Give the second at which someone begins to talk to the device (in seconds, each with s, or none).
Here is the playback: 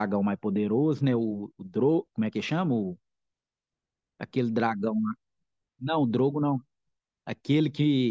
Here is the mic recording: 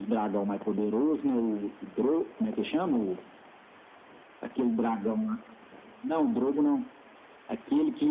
none